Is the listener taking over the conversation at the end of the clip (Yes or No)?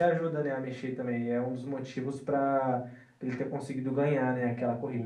Yes